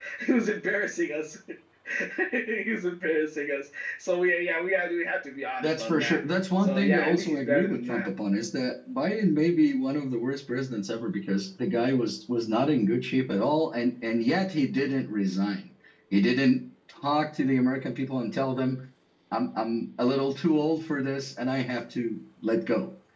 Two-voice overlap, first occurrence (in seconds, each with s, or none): 5.6 s